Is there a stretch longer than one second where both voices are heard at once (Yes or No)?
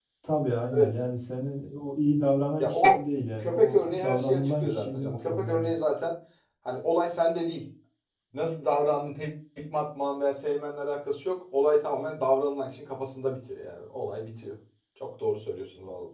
Yes